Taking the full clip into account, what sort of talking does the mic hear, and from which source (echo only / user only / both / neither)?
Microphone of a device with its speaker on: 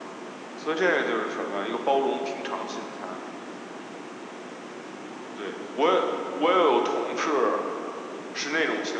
echo only